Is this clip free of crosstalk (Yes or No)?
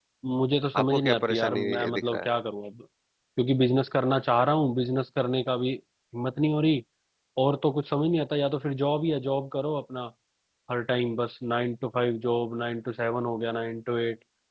No